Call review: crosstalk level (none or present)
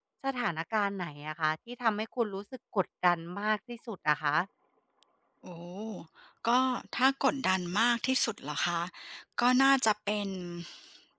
none